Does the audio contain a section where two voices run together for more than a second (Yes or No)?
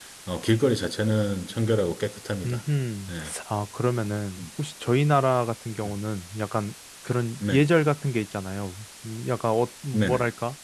No